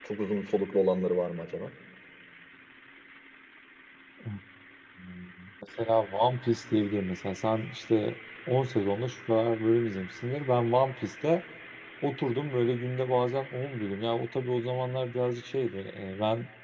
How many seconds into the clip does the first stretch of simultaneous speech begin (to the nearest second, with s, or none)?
none